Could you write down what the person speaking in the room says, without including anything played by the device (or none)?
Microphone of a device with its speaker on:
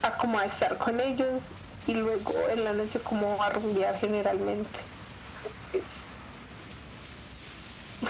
none